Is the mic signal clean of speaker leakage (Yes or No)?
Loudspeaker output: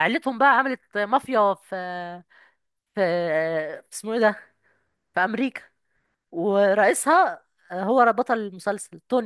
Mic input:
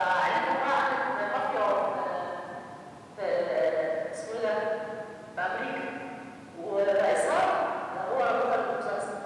No